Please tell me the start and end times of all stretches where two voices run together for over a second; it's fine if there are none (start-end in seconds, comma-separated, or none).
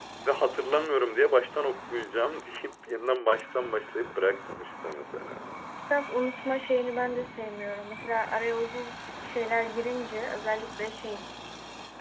none